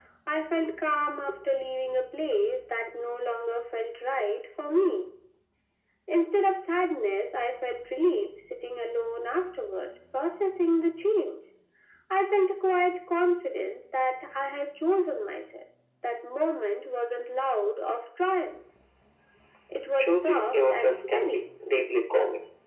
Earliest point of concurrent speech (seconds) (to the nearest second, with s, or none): 20 s